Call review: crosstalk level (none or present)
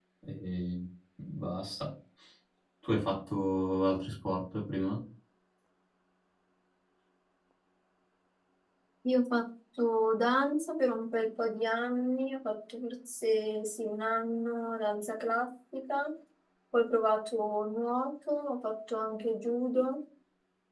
none